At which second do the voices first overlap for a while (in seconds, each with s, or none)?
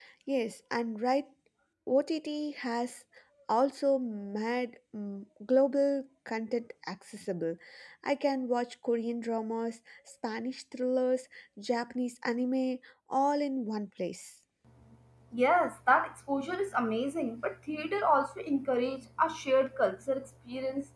none